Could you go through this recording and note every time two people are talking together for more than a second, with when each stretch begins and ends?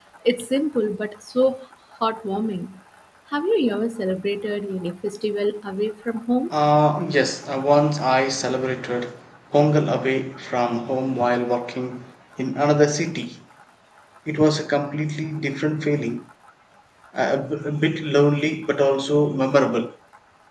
none

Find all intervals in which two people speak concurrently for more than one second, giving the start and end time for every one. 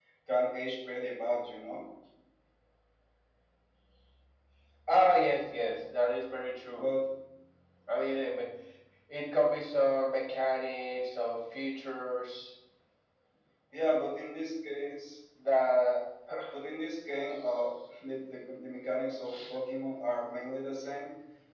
none

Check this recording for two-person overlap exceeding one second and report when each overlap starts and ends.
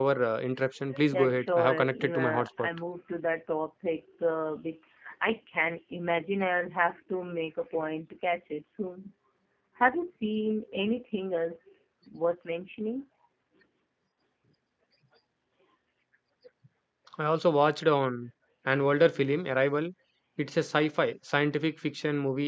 1.1-2.7

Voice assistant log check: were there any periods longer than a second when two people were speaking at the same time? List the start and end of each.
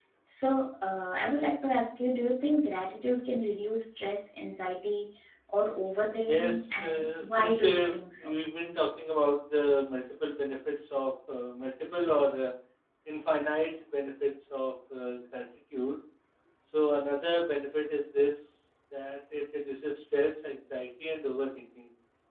6.2-8.3

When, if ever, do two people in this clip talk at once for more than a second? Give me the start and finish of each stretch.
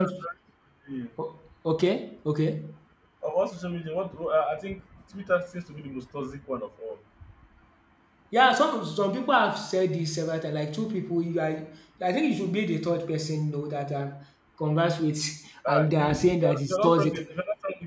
15.7-17.2

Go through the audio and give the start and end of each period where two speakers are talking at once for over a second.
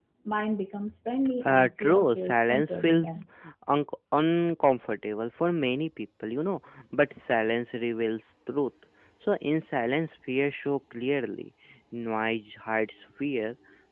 1.5-3.2

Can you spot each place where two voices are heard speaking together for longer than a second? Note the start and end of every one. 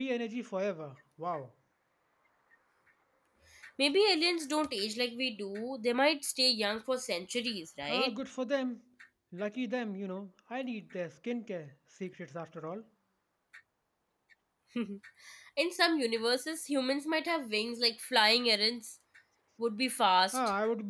none

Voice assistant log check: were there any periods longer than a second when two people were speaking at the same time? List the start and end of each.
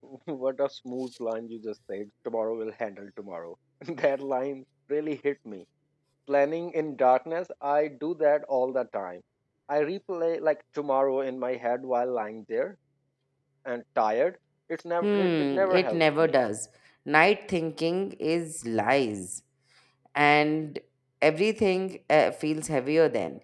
15.0-16.4

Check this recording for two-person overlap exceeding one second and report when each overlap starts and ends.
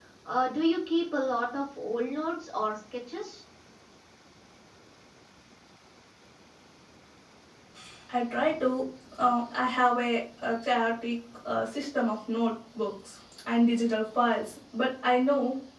none

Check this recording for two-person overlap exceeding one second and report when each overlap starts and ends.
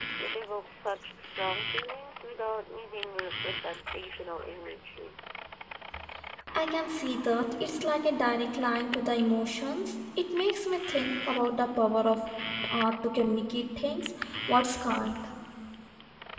none

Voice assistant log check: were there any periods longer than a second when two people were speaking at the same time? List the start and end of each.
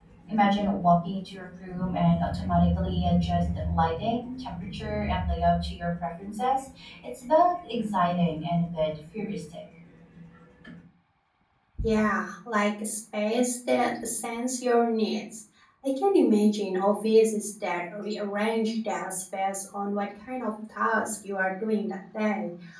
none

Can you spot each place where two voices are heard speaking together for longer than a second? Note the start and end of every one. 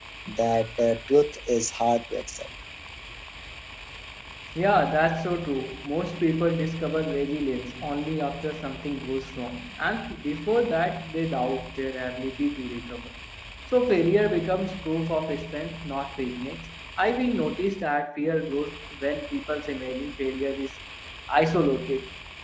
none

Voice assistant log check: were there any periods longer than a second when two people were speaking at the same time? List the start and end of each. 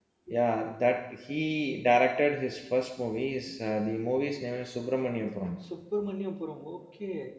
none

